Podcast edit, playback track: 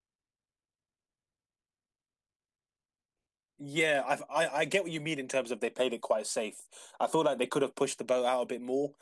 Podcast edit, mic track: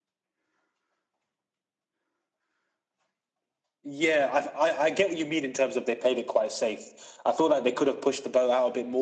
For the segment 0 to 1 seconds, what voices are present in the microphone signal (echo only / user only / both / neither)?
neither